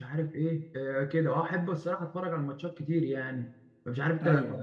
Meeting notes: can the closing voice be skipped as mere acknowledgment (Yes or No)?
Yes